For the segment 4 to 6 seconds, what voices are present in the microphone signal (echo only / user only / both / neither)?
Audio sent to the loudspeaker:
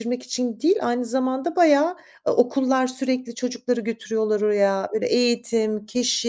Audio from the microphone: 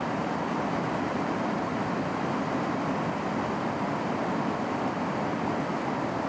neither